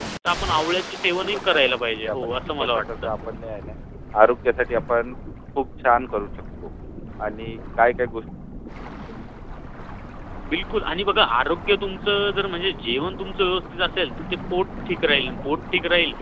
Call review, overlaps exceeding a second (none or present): present